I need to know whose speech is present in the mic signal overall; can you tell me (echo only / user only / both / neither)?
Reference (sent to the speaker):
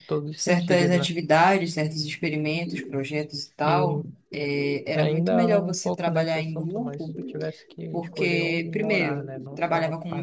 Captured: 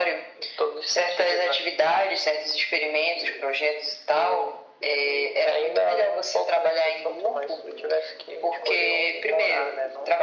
echo only